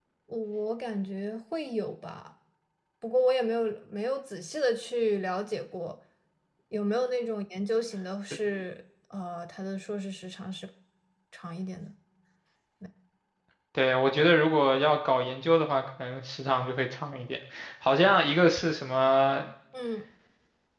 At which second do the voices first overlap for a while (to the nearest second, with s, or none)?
none